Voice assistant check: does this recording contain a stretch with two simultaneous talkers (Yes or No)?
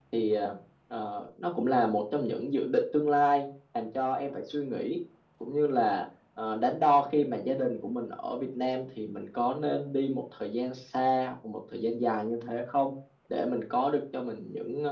No